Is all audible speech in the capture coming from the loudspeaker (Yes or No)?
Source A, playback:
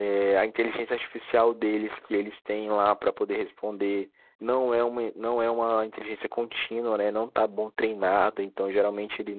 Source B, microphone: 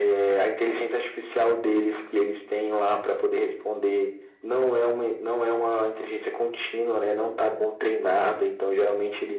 Yes